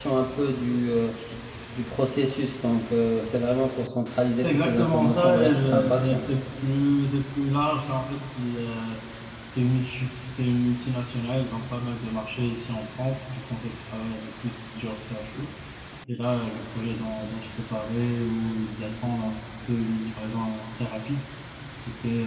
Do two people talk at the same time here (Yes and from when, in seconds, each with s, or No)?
Yes, from 4.4 s